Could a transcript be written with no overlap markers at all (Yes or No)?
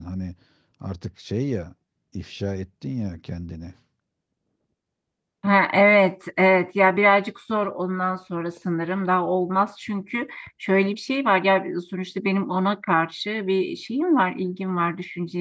Yes